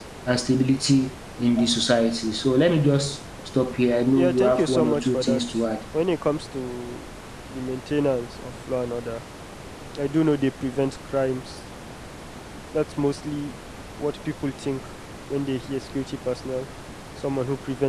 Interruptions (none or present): present